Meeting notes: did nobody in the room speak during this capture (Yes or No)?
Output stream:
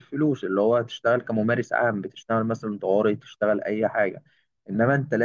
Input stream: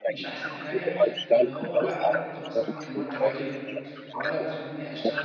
No